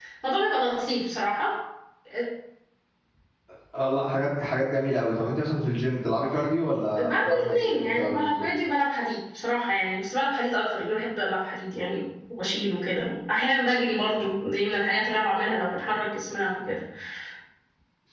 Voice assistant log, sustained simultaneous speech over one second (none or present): present